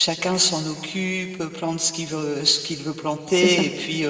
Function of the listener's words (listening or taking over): listening